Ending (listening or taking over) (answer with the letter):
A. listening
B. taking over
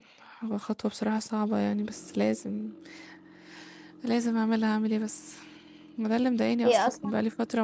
A